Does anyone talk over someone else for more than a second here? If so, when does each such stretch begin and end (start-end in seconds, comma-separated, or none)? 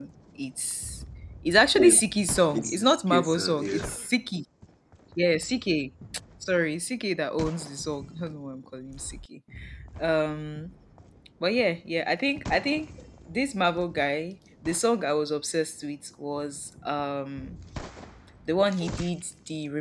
2.6-3.9